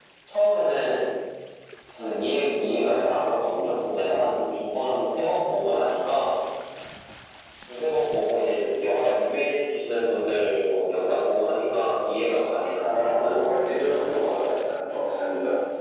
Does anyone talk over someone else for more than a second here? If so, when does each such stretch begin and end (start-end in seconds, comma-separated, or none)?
none